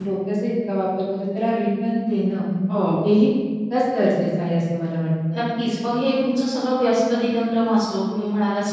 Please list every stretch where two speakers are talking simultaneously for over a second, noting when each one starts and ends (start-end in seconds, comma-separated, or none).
none